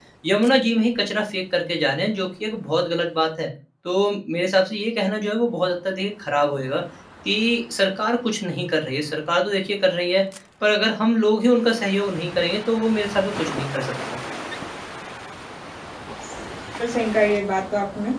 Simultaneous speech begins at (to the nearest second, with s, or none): none